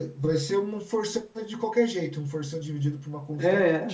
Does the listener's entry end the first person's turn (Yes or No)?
Yes